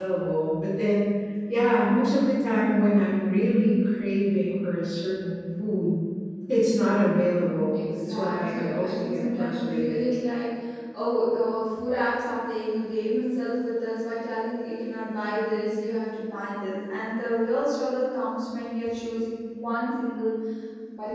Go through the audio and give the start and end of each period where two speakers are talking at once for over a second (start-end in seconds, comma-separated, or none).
7.7-10.0